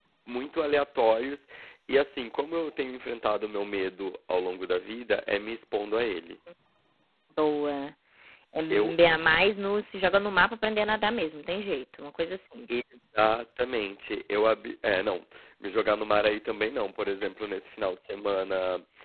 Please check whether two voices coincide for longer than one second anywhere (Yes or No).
No